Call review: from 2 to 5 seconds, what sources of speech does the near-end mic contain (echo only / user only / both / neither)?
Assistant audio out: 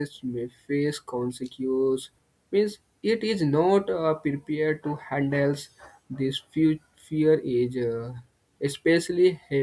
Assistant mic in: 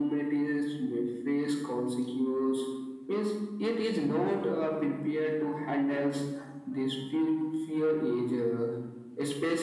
echo only